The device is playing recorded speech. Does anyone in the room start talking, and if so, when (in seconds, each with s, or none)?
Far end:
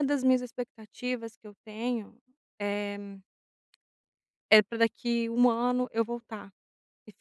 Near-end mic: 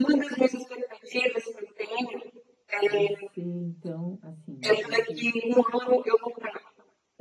2.8 s